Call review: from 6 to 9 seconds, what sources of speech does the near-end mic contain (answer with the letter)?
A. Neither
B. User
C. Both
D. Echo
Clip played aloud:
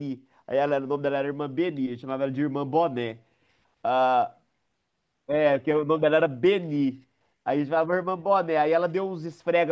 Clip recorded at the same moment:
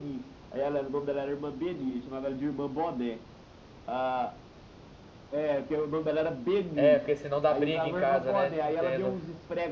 C